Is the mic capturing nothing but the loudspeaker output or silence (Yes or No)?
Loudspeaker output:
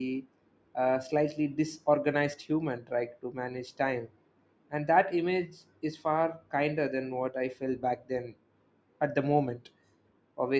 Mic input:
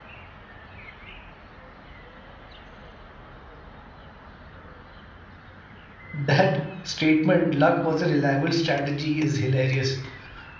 No